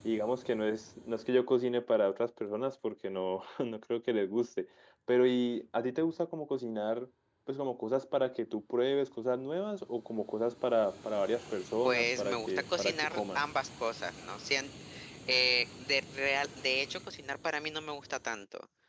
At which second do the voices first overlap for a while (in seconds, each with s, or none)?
11.8 s